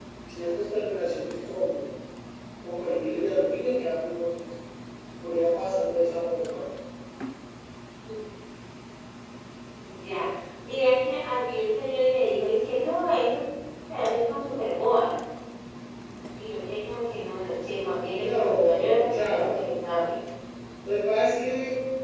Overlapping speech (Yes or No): Yes